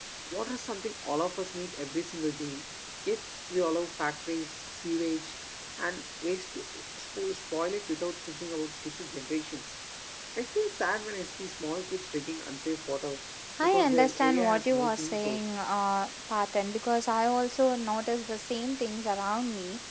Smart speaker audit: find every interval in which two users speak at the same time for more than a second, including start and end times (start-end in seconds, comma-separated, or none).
13.6-15.5